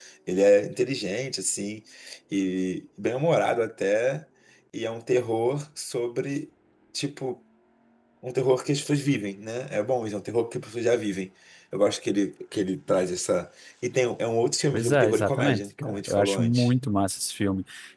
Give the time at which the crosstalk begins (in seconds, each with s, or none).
14.7 s